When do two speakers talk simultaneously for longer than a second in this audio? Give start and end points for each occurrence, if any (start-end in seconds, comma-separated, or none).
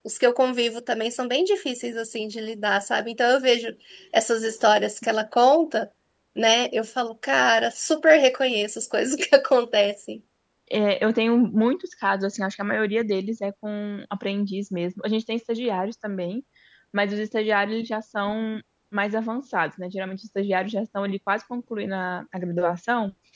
none